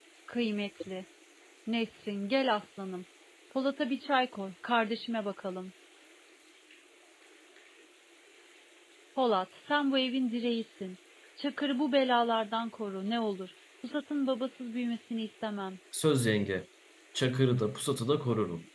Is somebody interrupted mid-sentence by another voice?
No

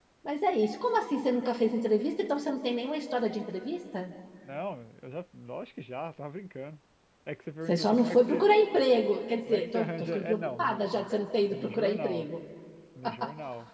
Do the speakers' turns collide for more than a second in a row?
Yes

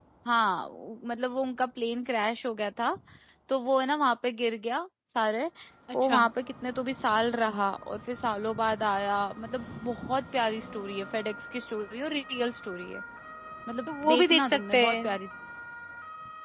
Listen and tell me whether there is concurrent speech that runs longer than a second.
Yes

